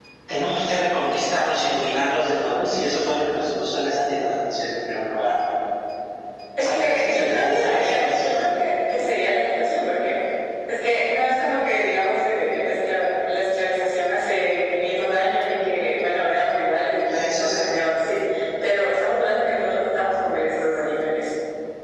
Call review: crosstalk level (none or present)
present